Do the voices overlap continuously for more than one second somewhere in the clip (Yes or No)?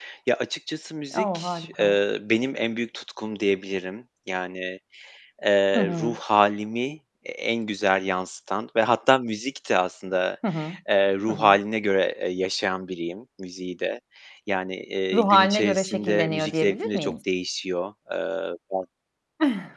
Yes